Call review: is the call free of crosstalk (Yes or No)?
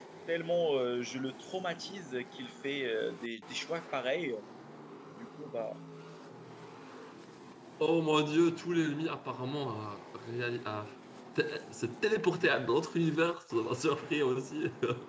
Yes